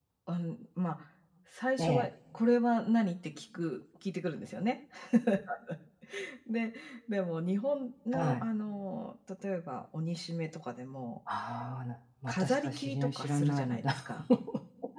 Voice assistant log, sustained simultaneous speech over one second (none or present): present